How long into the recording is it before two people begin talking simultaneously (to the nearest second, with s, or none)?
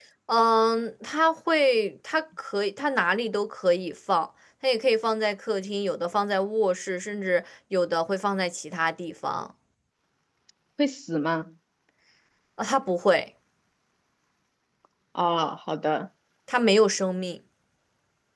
none